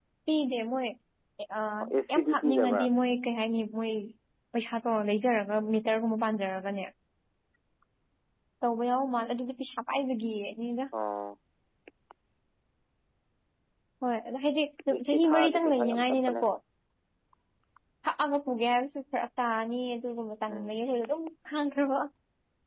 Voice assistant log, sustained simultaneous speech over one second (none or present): present